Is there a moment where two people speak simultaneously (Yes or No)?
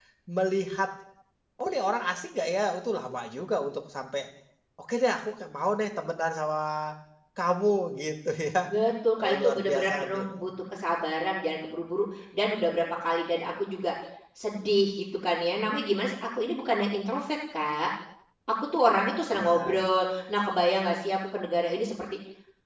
Yes